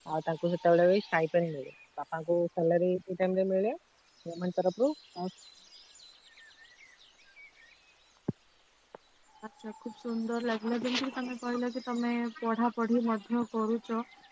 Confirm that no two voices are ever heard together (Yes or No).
Yes